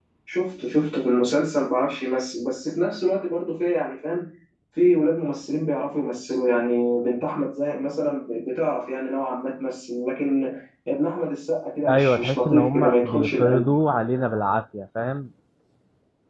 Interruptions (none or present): present